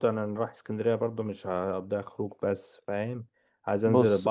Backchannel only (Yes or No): Yes